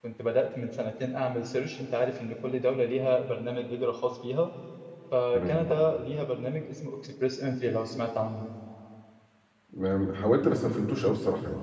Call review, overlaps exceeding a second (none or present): none